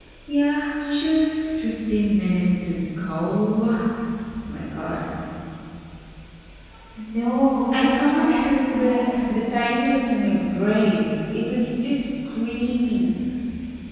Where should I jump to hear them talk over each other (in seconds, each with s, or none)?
7.7 s